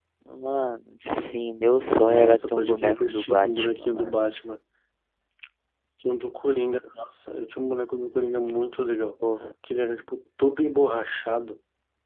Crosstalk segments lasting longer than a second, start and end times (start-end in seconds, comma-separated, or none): 2.0-4.1